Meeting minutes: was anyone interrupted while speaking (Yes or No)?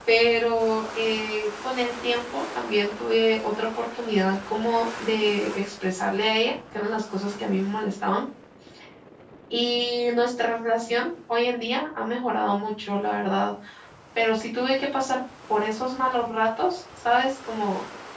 No